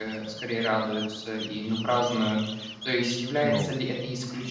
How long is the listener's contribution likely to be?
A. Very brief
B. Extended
A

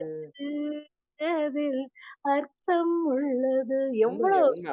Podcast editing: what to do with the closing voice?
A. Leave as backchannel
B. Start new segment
B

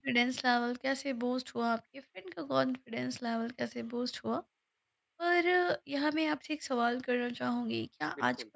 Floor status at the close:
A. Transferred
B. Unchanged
B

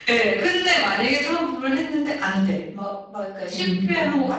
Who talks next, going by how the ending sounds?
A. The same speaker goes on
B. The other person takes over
A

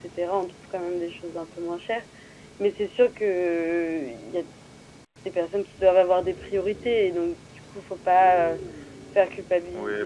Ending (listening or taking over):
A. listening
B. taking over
B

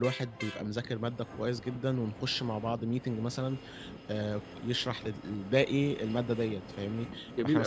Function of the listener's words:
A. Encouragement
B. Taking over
B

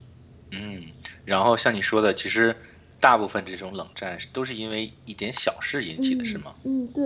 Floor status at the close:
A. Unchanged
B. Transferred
B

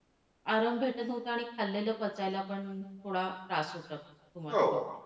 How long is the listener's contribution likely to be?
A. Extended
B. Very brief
A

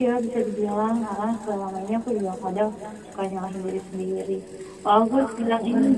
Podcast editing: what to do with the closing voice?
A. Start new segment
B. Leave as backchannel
B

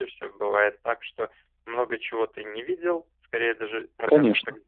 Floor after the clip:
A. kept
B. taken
A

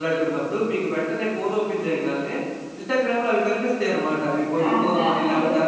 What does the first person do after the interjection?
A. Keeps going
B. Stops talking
A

